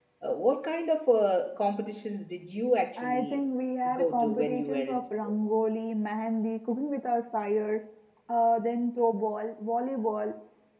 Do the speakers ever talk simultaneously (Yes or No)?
Yes